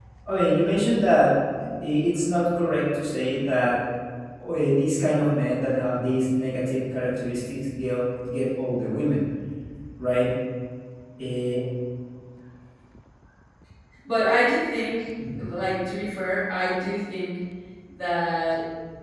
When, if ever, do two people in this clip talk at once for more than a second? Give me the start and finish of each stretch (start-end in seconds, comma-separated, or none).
none